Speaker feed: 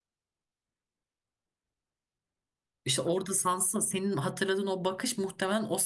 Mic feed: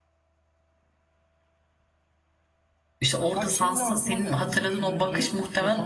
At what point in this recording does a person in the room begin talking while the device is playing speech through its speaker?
3.3 s

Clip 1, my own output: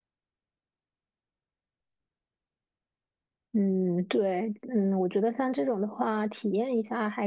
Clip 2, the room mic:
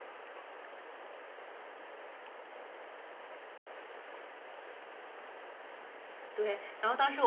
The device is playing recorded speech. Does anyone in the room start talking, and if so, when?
6.3 s

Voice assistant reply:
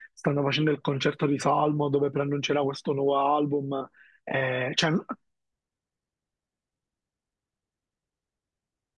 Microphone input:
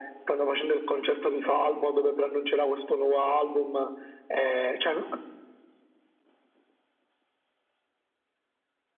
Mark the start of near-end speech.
none

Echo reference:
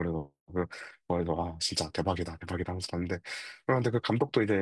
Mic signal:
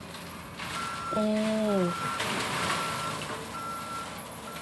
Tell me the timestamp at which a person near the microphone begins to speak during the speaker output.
1.2 s

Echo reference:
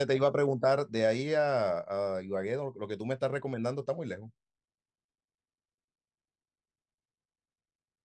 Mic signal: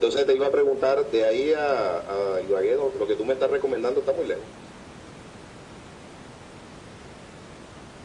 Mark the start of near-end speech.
none

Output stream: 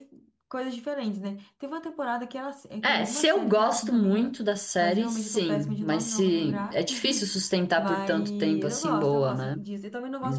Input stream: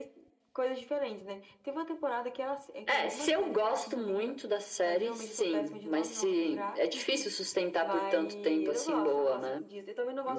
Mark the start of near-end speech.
none

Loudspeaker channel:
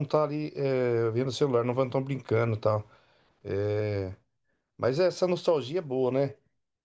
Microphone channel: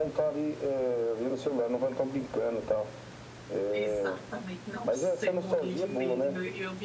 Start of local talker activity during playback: 3.7 s

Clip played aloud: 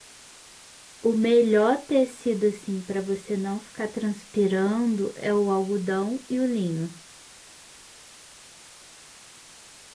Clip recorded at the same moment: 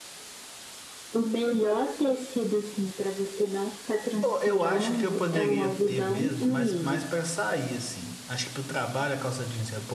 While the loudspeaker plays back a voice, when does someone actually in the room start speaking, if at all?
4.2 s

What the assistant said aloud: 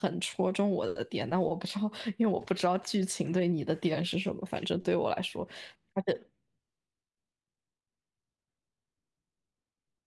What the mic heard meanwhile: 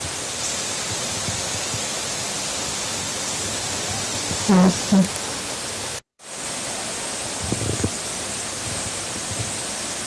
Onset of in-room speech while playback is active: 4.5 s

